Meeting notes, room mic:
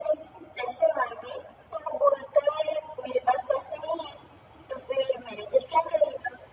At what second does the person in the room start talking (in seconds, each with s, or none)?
none